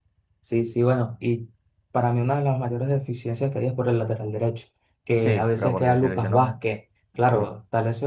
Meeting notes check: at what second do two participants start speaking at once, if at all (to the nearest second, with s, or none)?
5 s